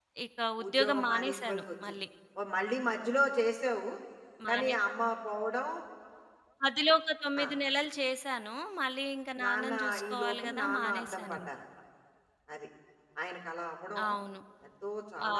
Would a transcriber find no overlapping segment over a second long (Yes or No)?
No